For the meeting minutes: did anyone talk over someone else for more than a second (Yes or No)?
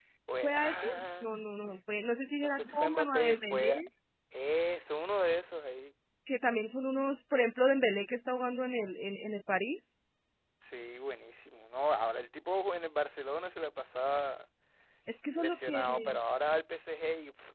Yes